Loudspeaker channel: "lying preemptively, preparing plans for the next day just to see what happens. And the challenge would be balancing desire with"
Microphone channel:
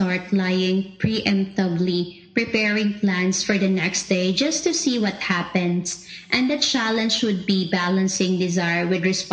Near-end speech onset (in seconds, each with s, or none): none